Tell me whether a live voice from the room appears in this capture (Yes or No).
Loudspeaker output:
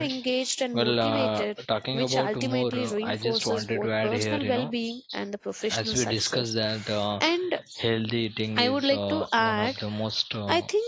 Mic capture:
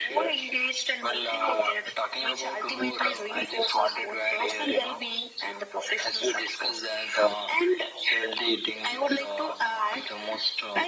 No